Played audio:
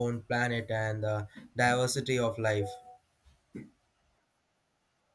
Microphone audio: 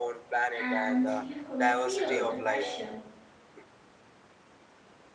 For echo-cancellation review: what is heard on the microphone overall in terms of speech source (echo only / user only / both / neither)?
both